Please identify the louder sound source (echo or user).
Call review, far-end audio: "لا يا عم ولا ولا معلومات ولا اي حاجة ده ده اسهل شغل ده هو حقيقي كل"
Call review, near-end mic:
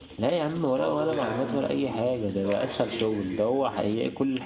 echo